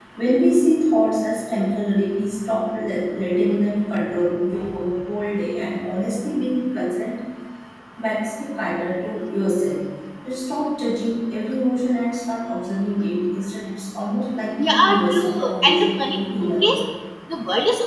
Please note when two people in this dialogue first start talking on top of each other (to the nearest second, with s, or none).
15 s